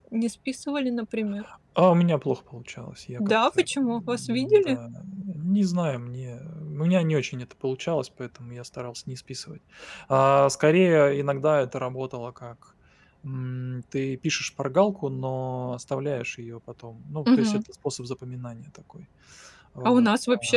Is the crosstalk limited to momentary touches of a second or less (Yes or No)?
No